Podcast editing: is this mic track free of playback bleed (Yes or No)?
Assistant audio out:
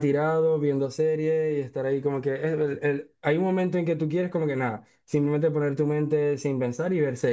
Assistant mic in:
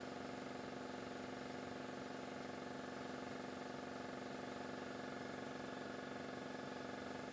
Yes